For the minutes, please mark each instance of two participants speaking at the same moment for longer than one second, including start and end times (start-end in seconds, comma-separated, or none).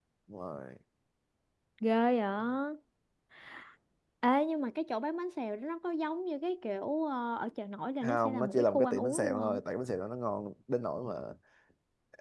8.0-9.6